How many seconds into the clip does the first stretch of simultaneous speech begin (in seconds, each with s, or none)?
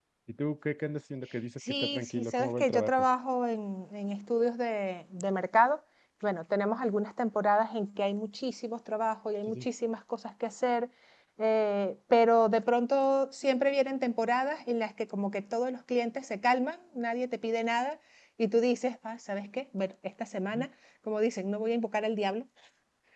1.7 s